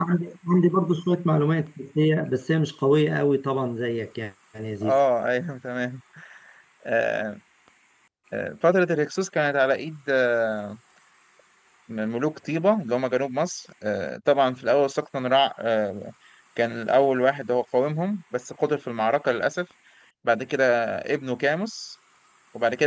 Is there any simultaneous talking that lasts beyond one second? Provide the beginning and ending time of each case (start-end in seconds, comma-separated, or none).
none